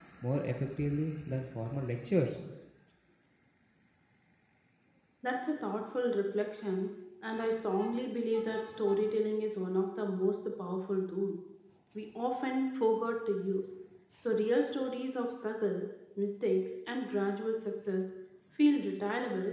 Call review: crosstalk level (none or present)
none